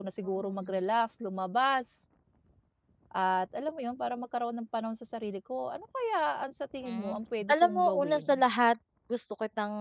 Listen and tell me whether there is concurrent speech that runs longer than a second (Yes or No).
Yes